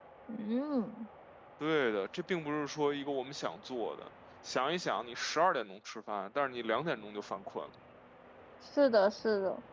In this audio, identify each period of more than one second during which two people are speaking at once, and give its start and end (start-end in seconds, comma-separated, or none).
none